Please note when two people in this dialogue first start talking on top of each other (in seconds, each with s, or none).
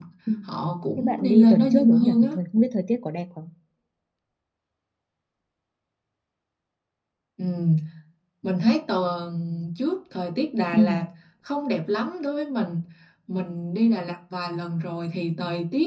1.0 s